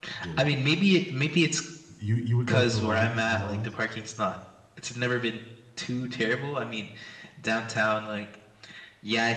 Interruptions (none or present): present